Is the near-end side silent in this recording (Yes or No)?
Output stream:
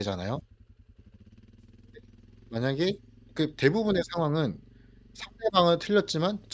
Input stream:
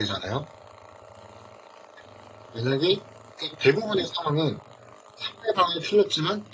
Yes